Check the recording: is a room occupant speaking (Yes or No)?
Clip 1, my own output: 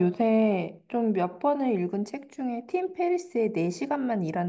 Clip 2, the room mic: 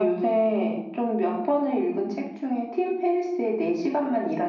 No